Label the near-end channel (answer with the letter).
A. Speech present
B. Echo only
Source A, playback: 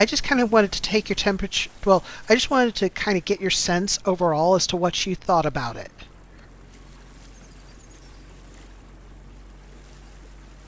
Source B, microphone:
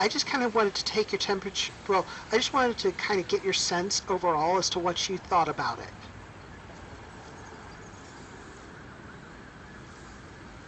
B